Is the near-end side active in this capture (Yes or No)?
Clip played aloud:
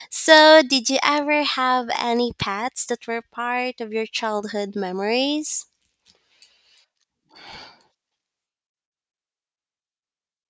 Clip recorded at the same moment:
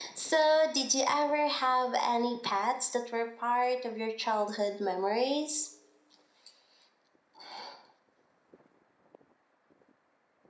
No